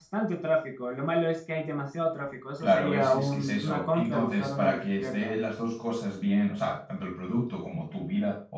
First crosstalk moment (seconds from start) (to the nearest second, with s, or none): 3 s